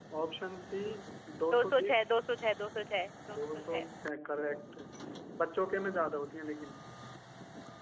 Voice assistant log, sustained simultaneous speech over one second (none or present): none